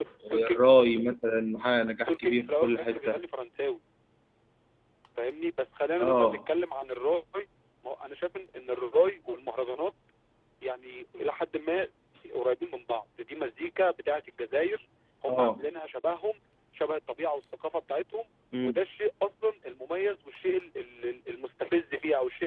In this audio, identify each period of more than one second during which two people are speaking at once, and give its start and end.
2.0-3.2

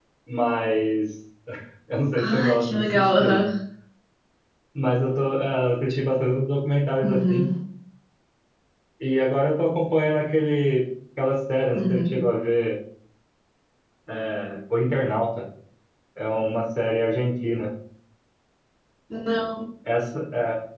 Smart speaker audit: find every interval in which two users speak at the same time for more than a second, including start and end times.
2.2-3.4

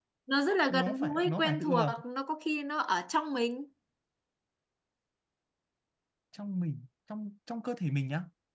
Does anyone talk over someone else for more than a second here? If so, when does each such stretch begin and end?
0.7-1.9

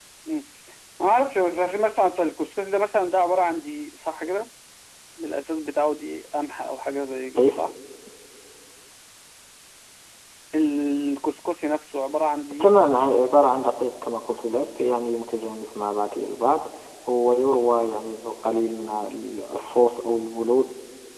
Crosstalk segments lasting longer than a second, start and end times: none

